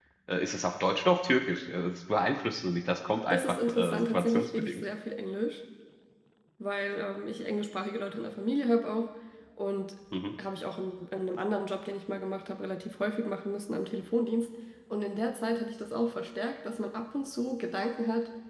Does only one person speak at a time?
No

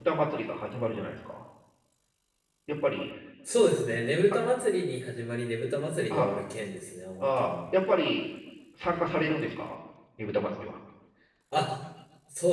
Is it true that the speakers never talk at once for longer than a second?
Yes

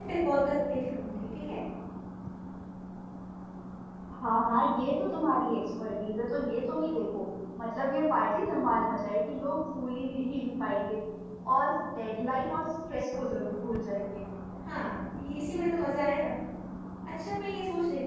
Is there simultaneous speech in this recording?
No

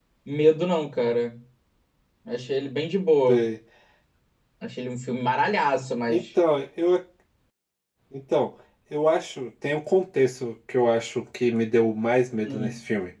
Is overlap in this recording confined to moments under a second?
Yes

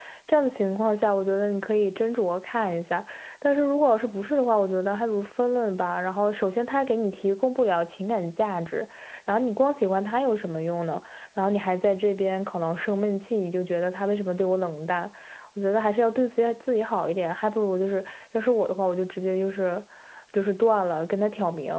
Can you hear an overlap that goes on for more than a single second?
No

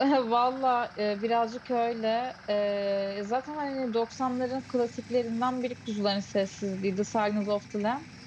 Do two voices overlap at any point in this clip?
No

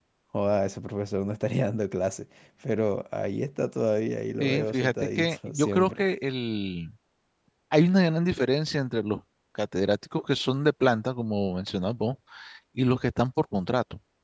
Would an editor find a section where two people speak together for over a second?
Yes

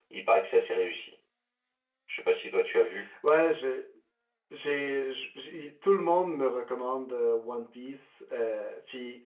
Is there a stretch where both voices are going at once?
No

